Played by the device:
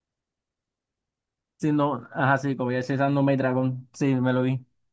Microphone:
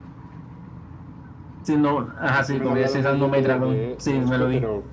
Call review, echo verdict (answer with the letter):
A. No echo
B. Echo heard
B